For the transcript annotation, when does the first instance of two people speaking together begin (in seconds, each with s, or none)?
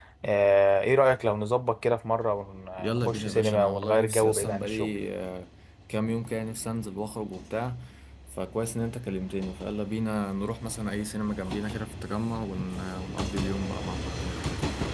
2.8 s